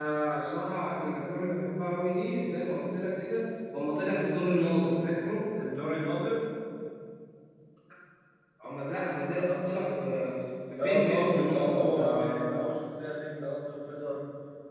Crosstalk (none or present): present